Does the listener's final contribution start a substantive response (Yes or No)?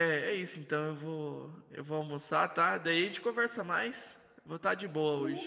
Yes